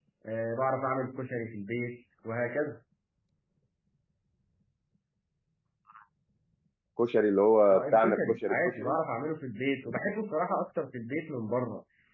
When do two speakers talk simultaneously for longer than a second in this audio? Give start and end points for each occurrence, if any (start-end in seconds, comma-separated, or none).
7.7-9.0